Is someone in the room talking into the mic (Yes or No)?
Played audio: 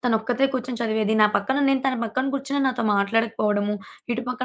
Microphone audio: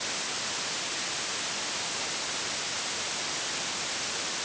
No